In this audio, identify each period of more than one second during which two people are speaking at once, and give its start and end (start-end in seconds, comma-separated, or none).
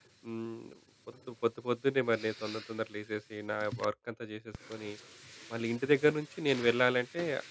none